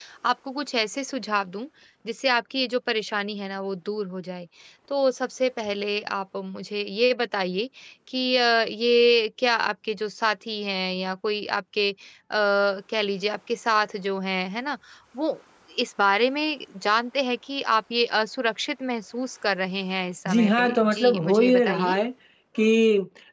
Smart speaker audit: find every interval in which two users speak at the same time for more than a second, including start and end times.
20.3-22.0

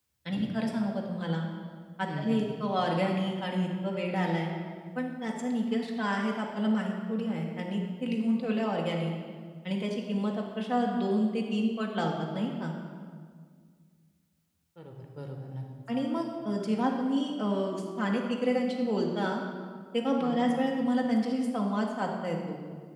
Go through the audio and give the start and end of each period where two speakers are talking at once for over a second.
none

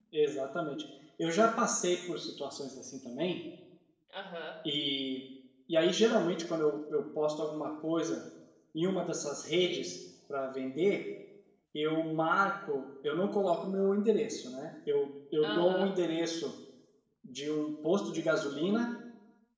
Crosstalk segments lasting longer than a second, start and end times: none

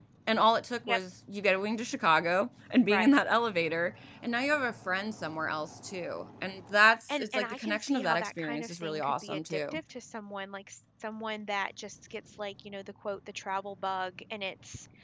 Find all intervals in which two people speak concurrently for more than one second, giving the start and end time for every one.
7.1-9.8

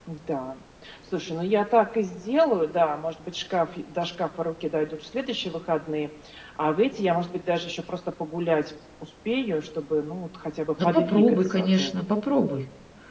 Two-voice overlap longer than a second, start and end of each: 10.8-12.0

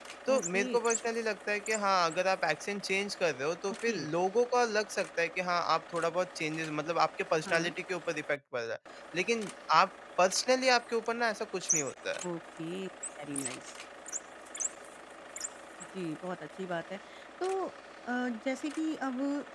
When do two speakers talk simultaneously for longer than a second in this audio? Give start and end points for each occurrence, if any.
none

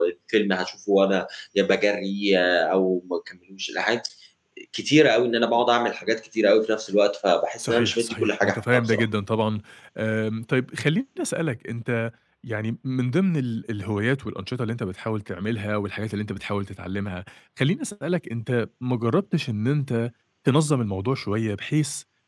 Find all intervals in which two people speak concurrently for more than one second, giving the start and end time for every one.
7.6-9.1

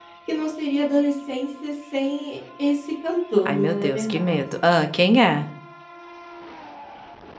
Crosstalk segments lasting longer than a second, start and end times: 3.4-4.6

